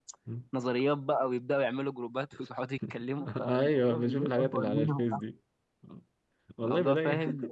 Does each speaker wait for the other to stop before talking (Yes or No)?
No